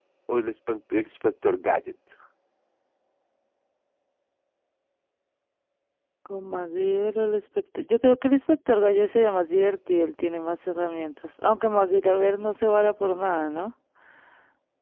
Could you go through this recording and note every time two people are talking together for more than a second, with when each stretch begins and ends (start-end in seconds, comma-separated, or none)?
none